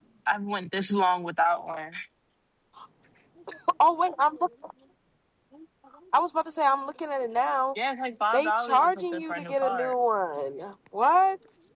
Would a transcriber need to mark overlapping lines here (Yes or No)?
Yes